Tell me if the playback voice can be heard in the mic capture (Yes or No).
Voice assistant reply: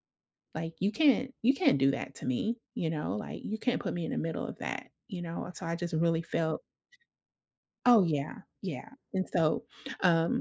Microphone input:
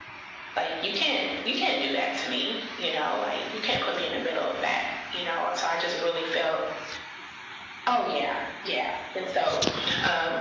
Yes